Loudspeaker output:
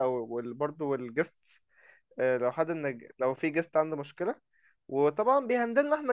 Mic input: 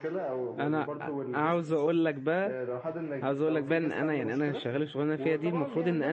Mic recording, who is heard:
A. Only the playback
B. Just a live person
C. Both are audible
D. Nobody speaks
C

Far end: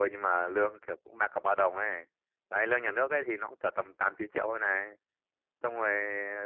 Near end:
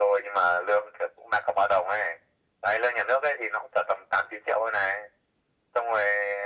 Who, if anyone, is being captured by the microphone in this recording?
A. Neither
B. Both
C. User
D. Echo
D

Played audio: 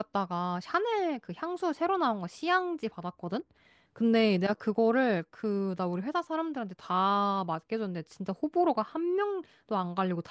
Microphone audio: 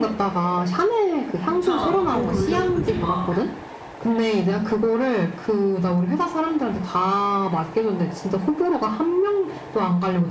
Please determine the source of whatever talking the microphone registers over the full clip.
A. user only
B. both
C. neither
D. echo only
B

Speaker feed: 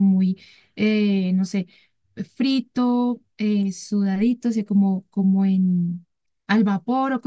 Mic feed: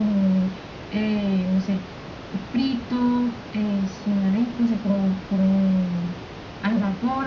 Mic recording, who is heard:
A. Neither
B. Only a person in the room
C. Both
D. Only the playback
D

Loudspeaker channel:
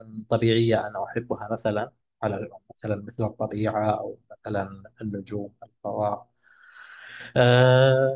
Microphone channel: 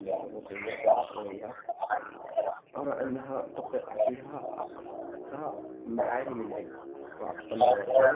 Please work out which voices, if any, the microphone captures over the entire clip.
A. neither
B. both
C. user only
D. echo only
B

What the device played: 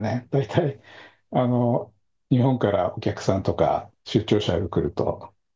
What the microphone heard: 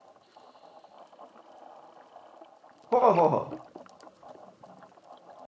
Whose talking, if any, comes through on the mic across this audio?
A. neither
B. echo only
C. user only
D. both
C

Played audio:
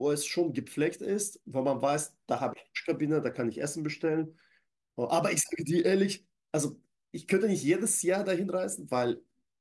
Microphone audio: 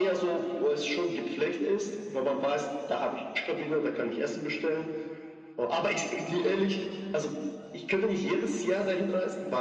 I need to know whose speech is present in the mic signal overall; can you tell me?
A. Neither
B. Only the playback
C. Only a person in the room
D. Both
B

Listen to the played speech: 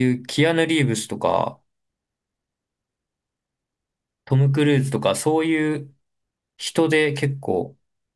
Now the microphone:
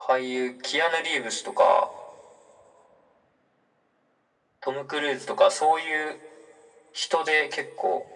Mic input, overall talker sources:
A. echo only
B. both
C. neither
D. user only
A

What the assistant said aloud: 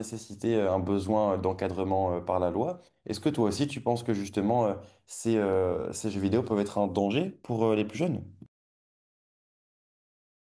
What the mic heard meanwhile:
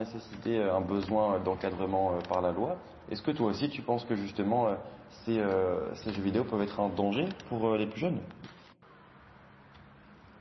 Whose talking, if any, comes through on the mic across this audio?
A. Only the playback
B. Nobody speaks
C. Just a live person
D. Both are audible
A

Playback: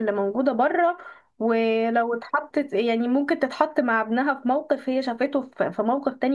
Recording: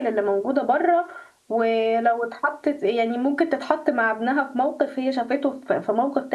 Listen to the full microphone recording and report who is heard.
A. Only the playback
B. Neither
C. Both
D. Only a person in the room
A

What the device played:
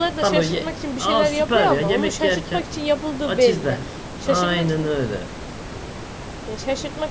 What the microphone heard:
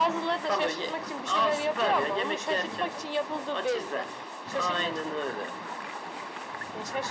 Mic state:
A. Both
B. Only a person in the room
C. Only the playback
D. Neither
C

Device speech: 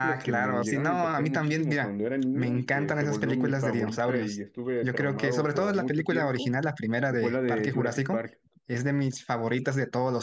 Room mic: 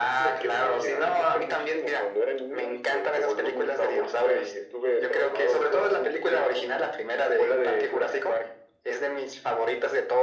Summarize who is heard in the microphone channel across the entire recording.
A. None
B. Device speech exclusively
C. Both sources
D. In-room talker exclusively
B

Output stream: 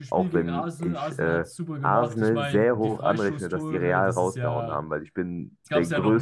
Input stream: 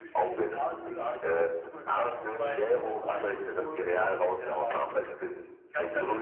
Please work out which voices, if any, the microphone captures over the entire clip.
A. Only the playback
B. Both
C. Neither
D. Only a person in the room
A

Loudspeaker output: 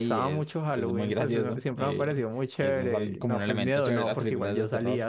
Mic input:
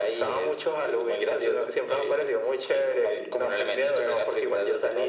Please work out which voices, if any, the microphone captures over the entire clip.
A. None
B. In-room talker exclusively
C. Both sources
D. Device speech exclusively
D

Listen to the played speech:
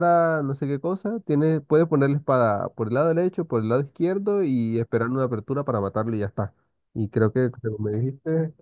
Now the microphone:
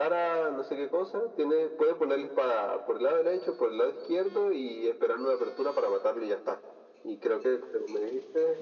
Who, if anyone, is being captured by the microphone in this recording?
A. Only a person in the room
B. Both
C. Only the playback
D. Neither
C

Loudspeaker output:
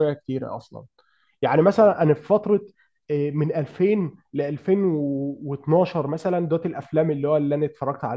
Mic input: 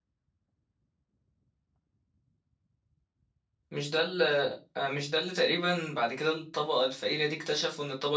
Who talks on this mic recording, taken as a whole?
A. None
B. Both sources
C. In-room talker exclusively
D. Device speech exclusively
C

